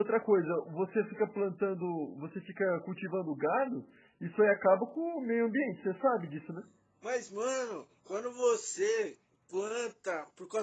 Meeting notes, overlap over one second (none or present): none